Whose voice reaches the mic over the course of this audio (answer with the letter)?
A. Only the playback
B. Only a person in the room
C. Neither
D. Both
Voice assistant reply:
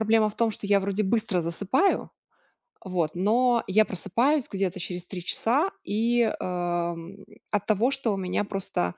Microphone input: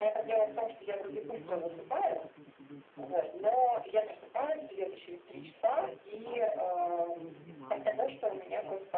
D